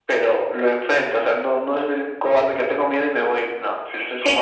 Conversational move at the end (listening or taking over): taking over